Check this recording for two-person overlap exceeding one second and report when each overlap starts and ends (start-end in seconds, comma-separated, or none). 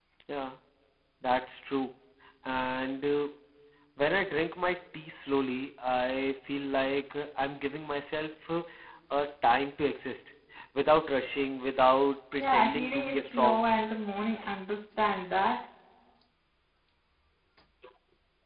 12.4-13.6